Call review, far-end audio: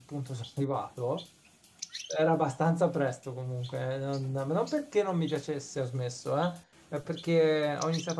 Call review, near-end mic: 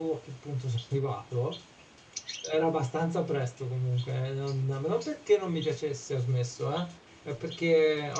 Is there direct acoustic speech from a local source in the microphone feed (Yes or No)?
No